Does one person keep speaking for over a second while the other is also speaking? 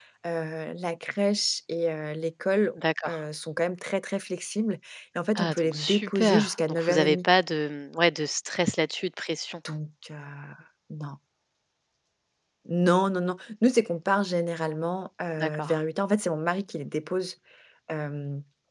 Yes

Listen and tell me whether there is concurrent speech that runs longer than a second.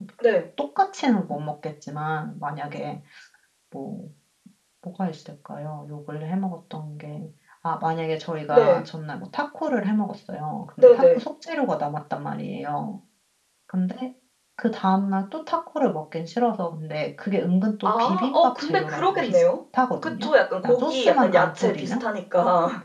Yes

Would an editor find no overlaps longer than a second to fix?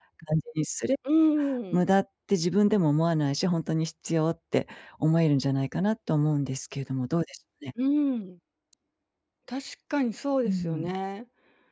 Yes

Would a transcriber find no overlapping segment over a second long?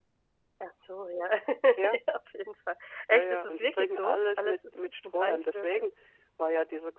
No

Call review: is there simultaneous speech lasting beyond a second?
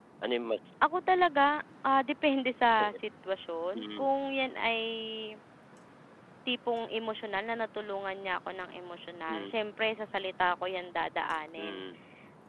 No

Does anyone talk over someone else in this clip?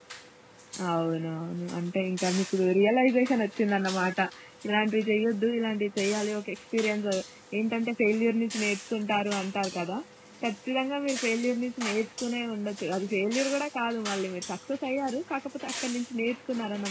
No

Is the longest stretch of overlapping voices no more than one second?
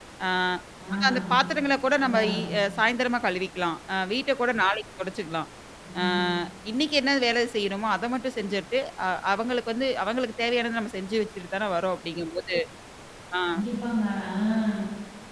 Yes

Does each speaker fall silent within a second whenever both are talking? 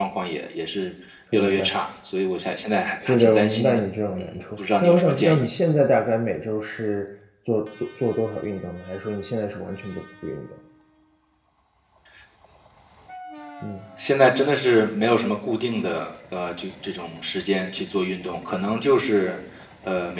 No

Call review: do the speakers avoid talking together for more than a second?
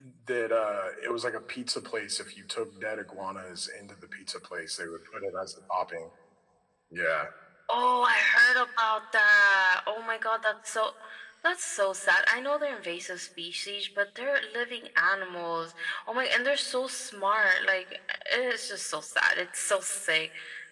Yes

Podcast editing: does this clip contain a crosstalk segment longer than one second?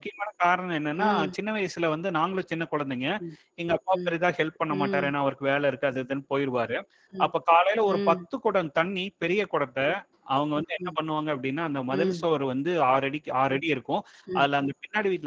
No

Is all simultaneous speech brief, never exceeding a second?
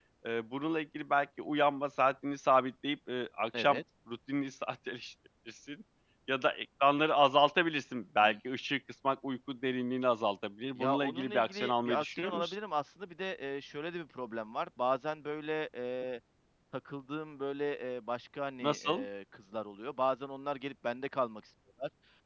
No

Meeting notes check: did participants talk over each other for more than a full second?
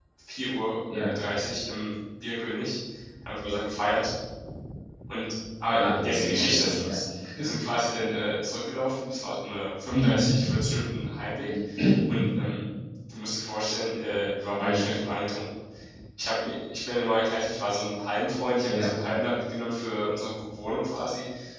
Yes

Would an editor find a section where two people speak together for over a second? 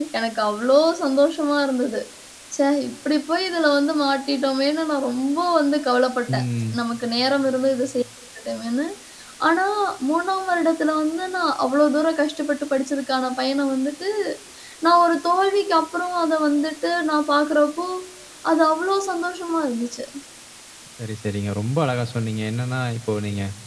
No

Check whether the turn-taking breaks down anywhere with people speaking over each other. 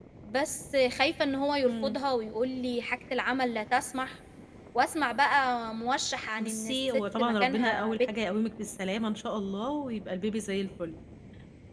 Yes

